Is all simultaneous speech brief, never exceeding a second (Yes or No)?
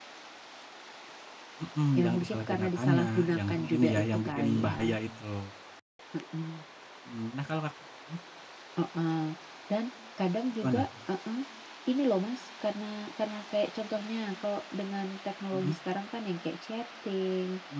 No